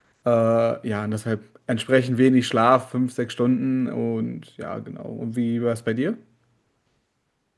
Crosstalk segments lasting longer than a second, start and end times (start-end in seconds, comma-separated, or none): none